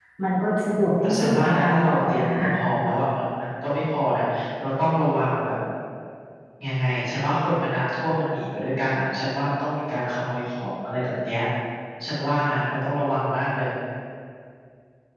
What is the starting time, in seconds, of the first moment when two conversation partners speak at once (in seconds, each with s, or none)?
1.0 s